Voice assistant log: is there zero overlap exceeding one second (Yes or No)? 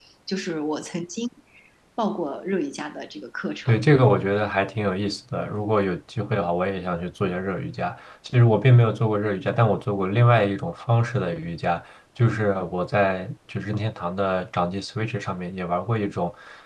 Yes